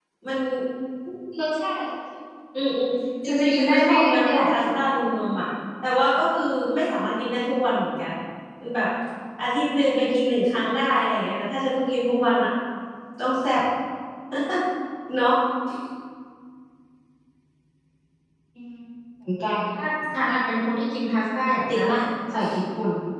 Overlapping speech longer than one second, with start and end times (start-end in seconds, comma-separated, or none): 3.2-4.5